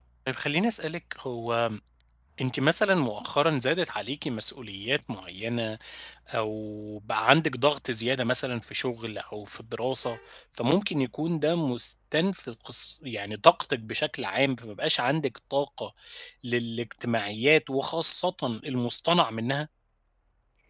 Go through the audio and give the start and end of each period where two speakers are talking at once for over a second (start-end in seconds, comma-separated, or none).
none